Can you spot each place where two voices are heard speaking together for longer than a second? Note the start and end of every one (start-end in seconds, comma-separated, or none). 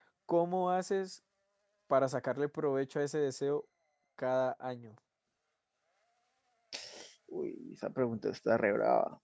none